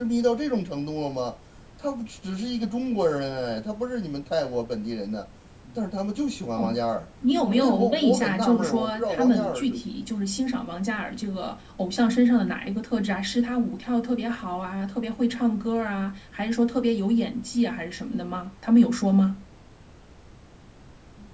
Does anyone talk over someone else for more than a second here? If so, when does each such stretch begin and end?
7.6-9.7

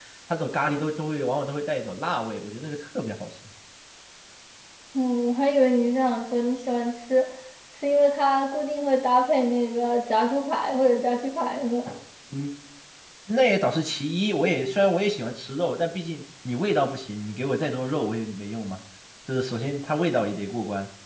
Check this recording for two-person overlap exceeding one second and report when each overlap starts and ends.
none

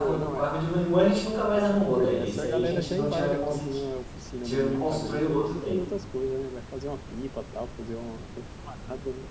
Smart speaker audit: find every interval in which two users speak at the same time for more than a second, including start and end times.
1.7-3.6, 4.4-5.8

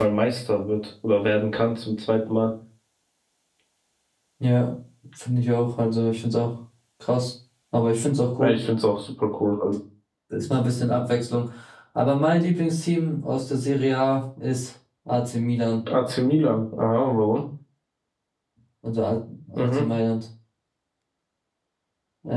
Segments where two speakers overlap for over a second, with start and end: none

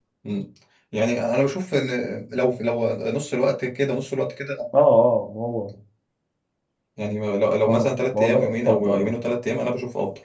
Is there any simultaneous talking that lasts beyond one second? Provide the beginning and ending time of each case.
7.7-9.2

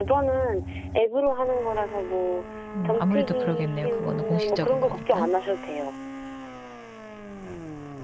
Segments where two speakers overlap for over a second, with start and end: 2.8-5.3

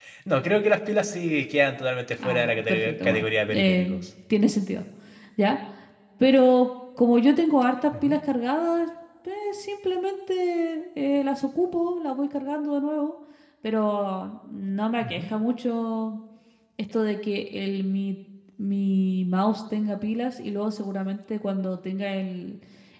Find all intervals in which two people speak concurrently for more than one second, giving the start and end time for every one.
2.2-3.9

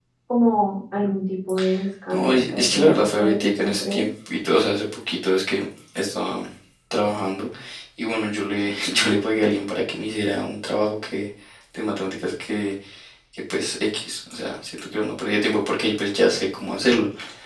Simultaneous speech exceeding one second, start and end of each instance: 2.1-4.0

